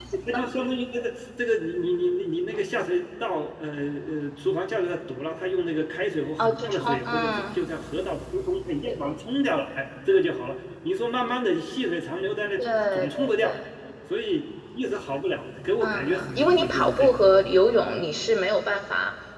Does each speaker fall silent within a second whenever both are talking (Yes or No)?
No